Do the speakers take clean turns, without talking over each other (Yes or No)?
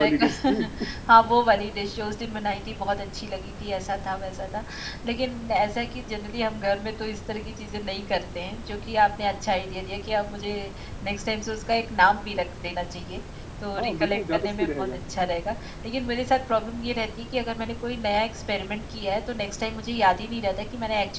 No